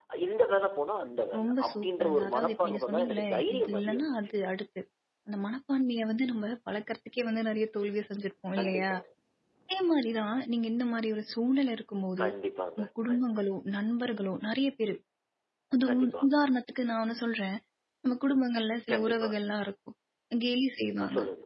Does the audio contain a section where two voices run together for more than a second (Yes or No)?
Yes